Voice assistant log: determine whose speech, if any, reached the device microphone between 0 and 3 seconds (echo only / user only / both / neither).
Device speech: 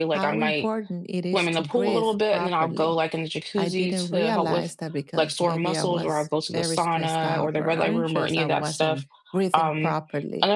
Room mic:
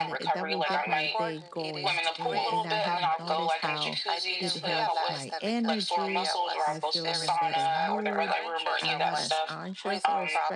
both